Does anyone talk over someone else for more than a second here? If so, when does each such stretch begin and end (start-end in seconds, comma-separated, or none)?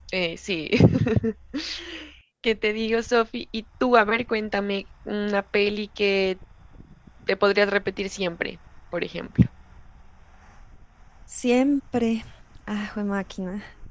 none